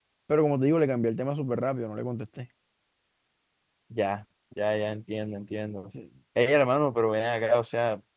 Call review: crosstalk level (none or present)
none